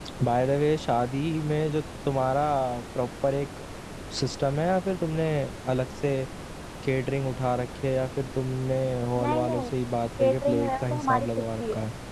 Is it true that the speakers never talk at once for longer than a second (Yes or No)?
No